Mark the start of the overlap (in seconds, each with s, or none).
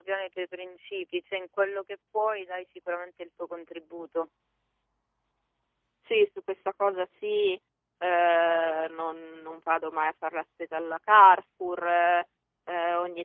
none